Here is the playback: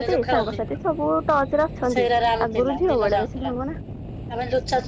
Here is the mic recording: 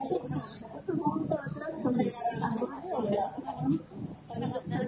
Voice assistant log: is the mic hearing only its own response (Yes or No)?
No